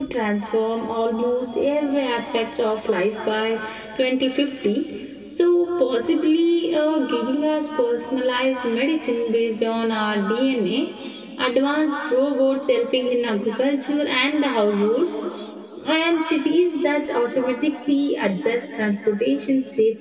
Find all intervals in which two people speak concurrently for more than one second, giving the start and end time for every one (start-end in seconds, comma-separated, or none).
none